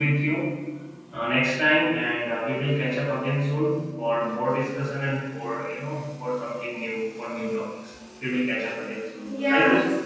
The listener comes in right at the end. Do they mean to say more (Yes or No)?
Yes